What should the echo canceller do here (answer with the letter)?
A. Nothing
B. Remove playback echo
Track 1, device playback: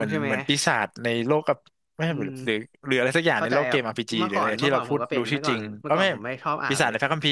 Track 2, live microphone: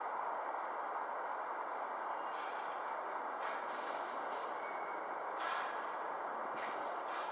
A